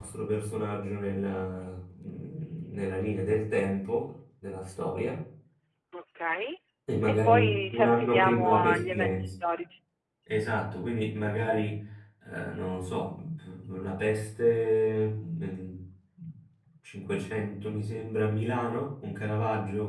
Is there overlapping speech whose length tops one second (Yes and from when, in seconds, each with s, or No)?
Yes, from 7.1 s